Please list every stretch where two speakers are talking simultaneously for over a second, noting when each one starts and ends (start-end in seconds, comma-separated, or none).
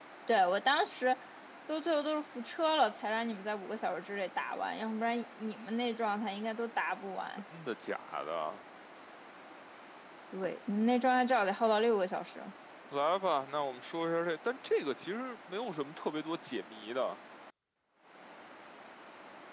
none